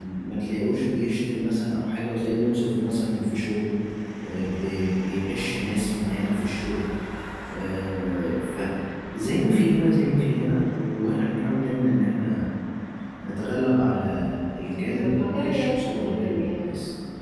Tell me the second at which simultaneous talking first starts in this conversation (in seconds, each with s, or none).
14.6 s